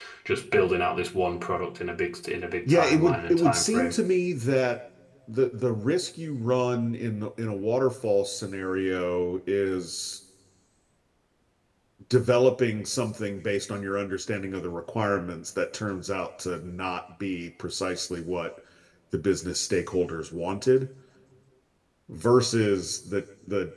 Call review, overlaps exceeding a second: present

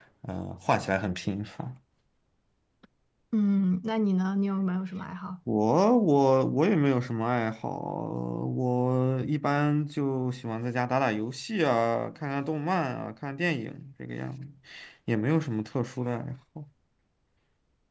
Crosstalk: none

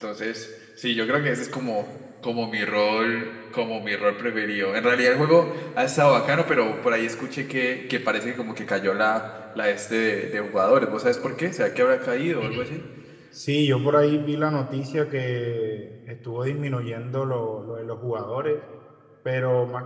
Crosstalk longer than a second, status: none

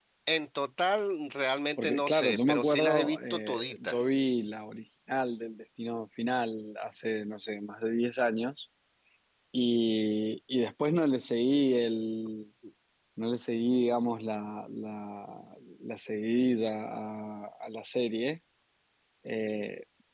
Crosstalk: present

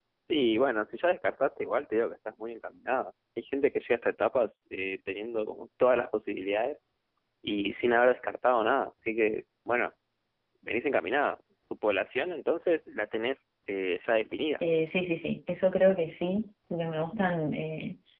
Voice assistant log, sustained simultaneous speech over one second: none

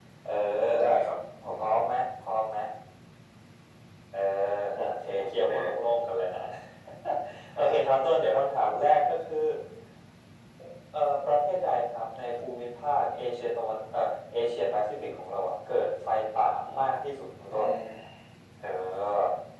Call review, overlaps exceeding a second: none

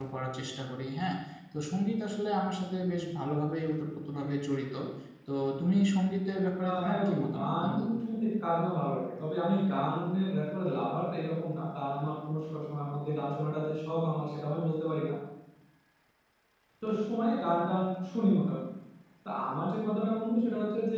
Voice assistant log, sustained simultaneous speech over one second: present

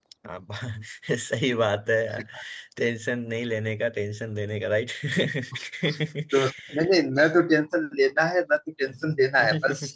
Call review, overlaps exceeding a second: none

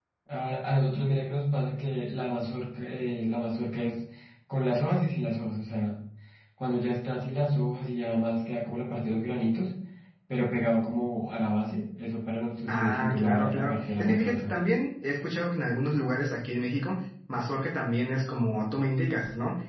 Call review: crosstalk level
present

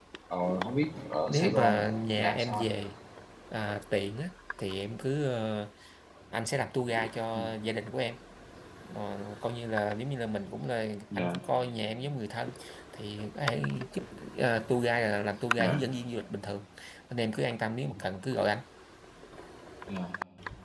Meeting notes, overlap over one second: present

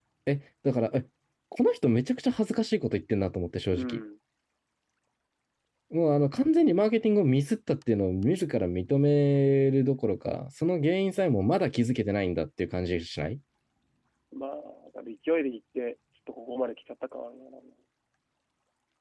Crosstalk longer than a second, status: none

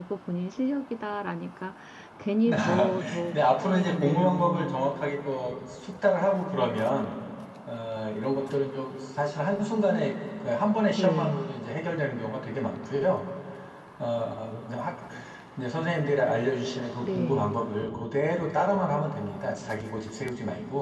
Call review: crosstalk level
present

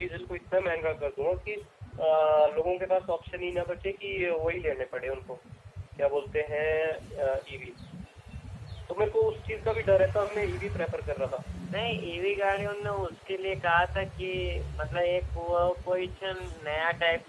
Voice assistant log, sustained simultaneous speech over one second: none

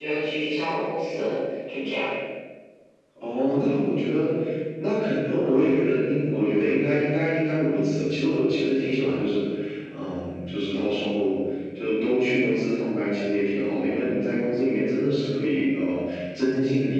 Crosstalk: none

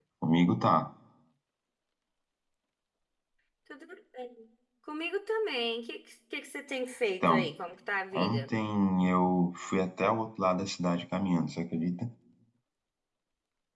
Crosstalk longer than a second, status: none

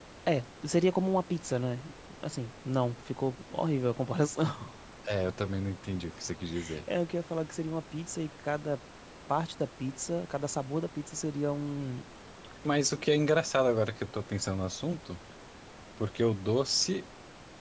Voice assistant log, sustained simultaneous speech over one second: none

